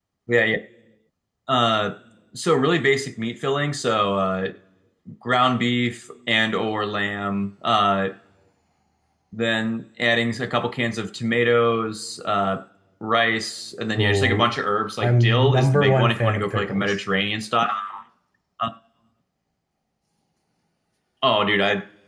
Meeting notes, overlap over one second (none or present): present